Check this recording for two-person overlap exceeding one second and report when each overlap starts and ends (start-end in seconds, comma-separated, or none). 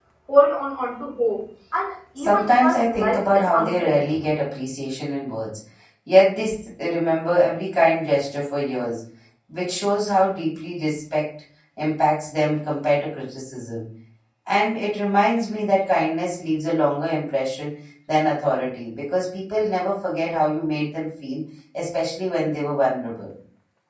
2.2-4.0